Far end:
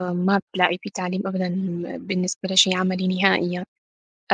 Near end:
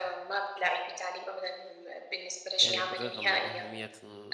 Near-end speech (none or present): present